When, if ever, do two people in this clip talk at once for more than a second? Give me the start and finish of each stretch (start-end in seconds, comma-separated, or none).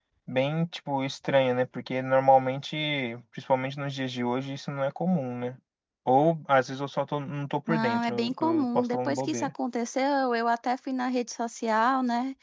7.7-9.5